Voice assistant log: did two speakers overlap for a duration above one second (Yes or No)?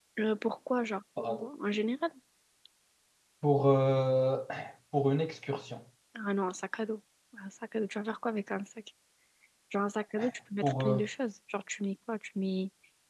No